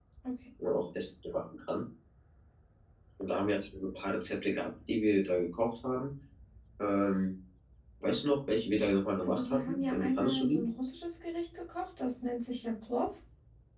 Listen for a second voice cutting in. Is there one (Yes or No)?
Yes